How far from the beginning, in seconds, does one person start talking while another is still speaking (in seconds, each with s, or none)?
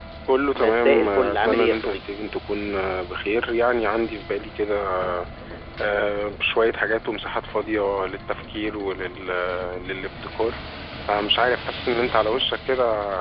0.5 s